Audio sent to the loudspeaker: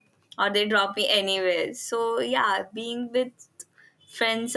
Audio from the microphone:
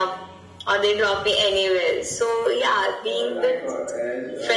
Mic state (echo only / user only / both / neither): both